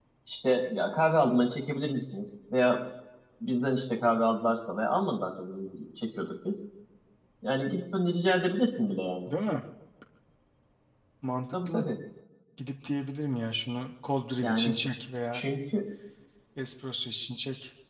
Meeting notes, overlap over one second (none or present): none